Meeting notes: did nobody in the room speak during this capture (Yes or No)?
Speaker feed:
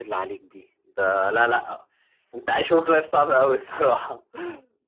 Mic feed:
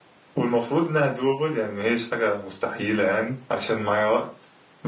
No